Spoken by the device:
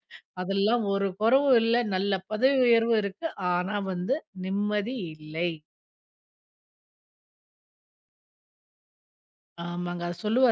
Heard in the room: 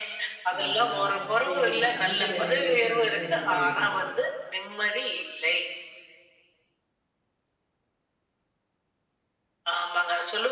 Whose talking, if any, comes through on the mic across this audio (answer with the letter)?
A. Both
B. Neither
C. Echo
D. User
A